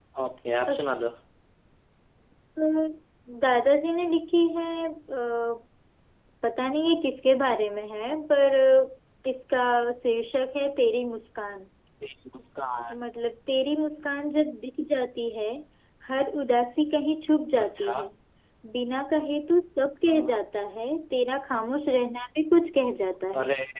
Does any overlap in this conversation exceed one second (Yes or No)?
No